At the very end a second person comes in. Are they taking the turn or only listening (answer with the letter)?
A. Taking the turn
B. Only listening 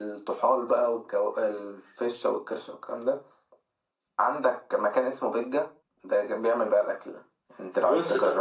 A